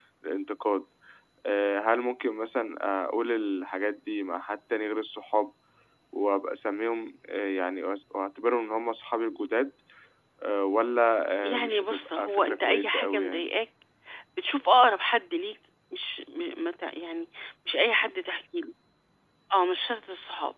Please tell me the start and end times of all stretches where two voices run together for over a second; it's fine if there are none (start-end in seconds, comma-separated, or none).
11.4-13.5